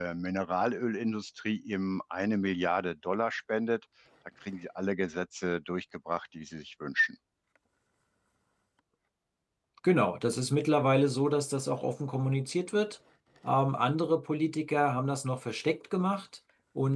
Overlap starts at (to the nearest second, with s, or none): none